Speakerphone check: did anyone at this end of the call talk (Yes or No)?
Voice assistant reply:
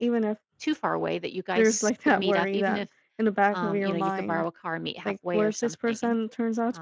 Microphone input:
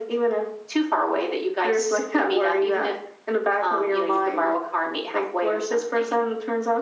No